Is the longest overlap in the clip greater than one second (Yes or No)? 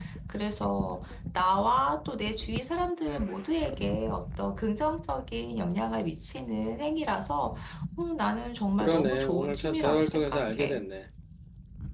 Yes